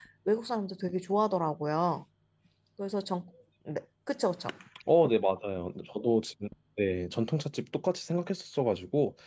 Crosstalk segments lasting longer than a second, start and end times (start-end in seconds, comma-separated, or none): none